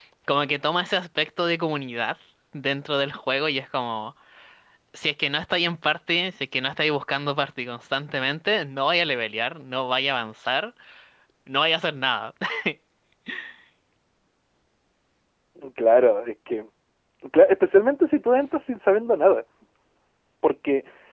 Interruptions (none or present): none